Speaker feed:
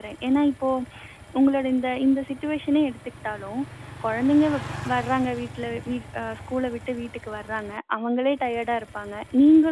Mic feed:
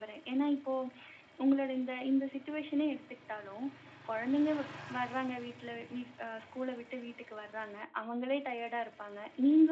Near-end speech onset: none

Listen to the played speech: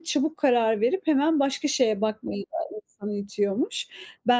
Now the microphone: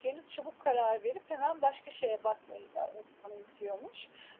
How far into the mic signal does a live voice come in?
none

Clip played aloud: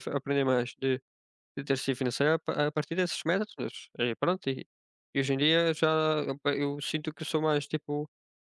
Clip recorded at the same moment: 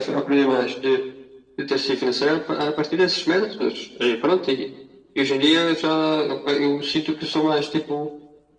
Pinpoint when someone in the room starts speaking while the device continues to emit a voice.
none

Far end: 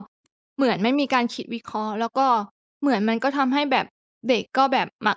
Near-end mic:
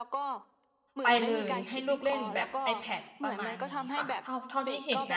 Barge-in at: 1.0 s

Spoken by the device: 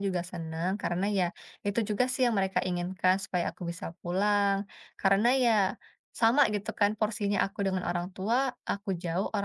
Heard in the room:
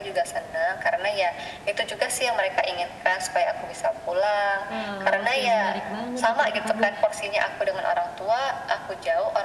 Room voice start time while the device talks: 4.7 s

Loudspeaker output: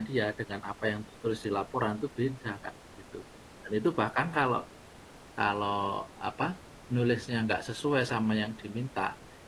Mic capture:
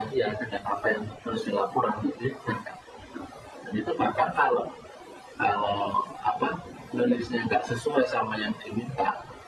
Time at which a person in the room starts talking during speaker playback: none

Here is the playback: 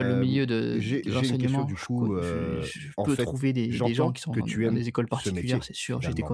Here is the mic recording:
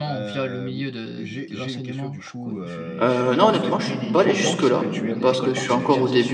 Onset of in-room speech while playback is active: 3.0 s

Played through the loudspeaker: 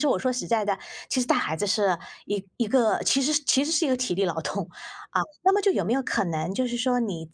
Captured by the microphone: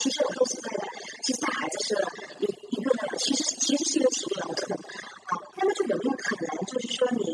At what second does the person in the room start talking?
none

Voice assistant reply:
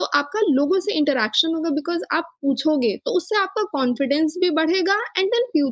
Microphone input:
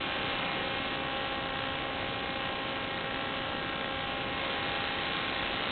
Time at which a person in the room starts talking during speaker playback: none

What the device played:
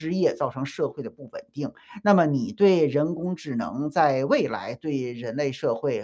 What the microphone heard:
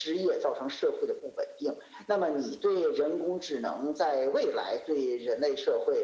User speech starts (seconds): none

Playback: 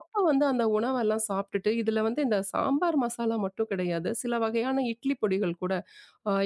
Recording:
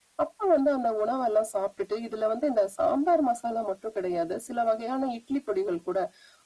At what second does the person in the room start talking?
none

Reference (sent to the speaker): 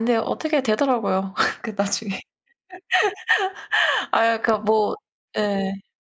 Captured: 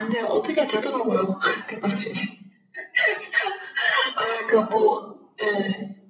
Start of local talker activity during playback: none

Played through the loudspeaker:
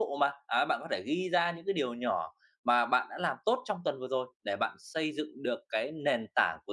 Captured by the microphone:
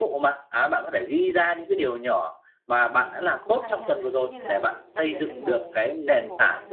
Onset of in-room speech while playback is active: 3.0 s

